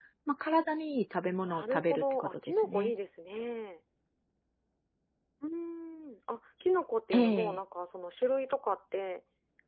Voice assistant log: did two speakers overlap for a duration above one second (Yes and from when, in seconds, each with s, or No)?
Yes, from 1.4 s